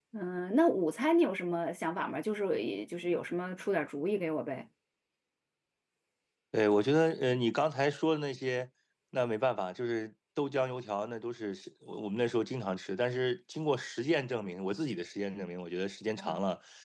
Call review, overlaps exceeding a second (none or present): none